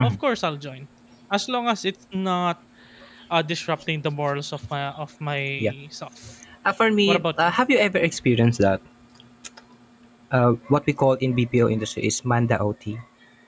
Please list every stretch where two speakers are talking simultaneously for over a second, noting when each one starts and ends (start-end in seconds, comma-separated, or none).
none